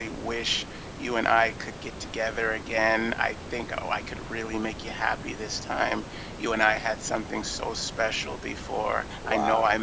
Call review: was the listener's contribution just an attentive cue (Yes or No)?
Yes